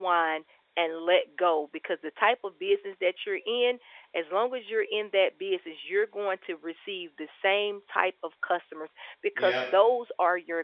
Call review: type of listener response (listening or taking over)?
listening